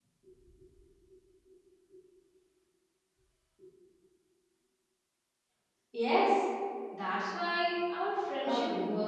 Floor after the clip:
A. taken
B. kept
A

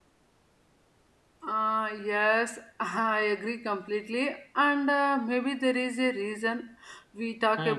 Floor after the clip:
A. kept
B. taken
A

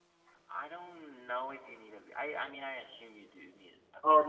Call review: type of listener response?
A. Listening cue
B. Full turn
B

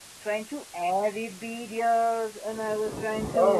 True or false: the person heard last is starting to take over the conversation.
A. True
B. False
B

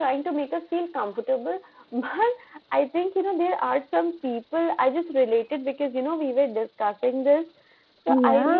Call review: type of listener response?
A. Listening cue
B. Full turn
A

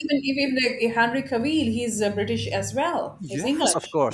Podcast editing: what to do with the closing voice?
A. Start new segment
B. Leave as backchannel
A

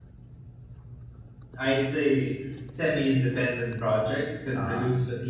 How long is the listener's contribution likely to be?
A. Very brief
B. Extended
A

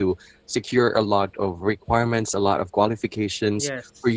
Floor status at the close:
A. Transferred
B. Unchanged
B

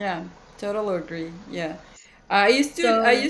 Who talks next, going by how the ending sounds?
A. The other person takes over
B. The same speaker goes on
B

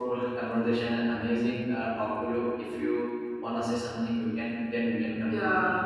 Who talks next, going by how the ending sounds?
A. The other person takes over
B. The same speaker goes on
A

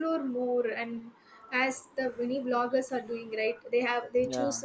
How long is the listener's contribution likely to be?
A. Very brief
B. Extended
A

